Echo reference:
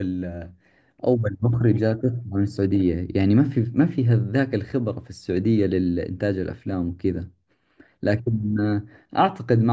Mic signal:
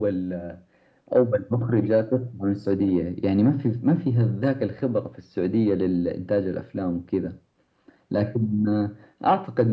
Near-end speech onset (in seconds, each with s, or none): none